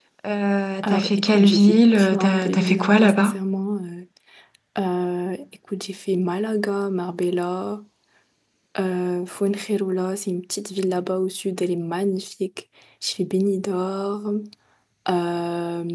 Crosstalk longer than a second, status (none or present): present